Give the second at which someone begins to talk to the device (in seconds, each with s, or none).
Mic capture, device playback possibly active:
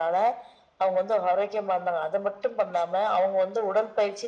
none